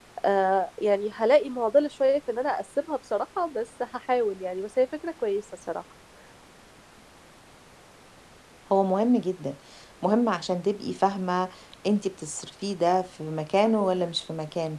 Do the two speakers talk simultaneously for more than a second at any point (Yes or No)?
No